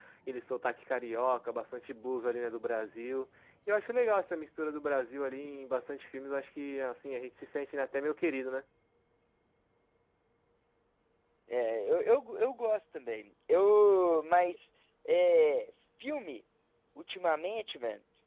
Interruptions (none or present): none